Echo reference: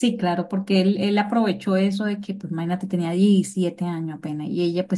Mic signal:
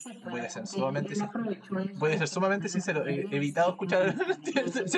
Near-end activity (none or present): present